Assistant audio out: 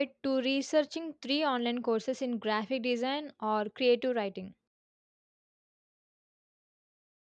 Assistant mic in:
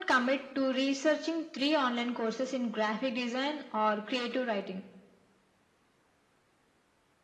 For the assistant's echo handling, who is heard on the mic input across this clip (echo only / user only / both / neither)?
echo only